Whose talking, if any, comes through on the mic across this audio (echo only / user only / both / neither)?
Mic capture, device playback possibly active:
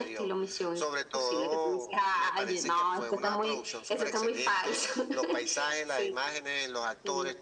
echo only